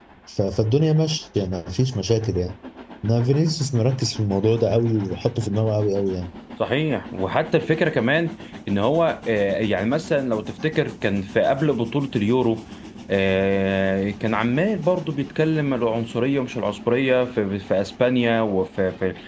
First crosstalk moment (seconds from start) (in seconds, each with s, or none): none